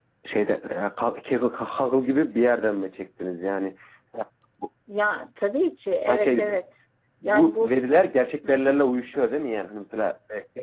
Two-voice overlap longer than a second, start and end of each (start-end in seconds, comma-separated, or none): none